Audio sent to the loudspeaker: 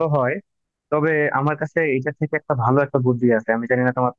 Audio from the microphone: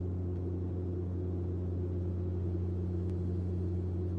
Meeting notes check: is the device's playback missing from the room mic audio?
Yes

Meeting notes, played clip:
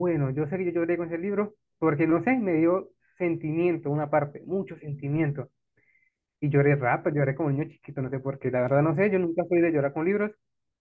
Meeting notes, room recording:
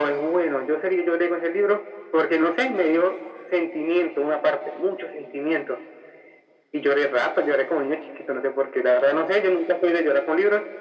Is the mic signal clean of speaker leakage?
No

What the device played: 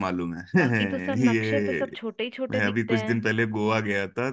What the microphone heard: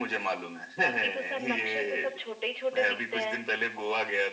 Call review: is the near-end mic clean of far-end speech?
No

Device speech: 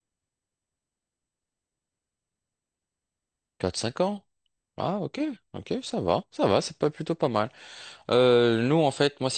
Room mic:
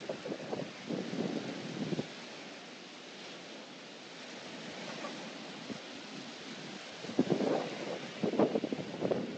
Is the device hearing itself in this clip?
No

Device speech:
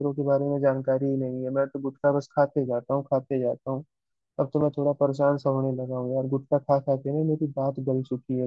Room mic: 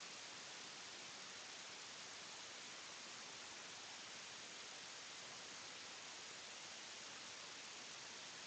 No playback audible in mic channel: Yes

